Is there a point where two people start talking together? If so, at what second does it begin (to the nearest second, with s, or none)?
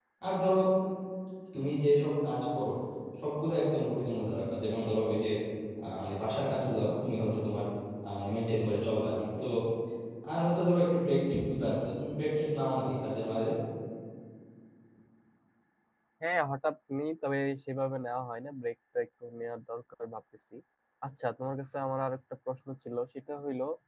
none